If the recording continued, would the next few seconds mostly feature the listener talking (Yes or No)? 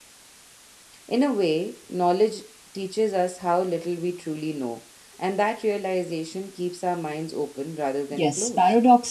Yes